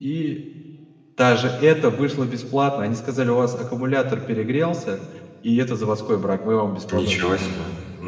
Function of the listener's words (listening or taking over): taking over